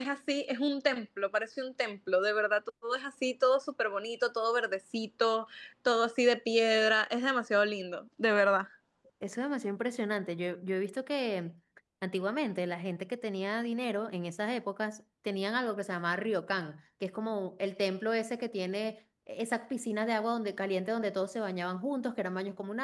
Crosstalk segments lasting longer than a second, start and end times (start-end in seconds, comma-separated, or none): none